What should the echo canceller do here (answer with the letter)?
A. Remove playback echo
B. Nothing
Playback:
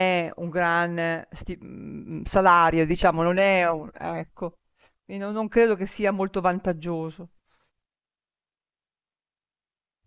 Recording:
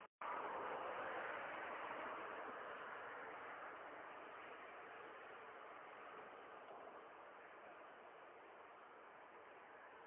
B